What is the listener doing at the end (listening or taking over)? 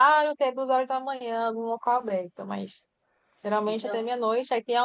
listening